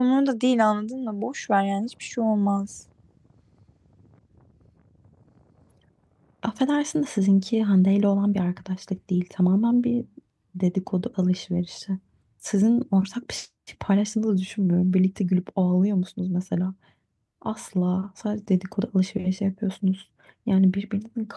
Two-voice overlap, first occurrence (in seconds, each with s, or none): none